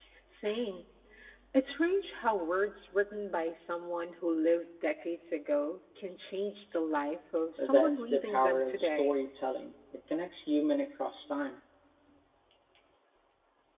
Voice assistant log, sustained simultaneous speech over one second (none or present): present